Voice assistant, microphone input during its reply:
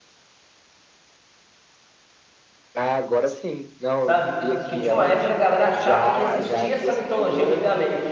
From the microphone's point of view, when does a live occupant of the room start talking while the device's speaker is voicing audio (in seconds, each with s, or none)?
4.0 s